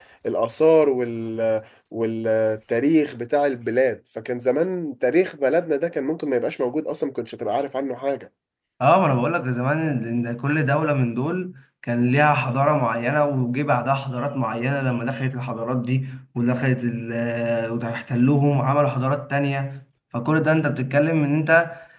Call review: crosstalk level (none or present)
none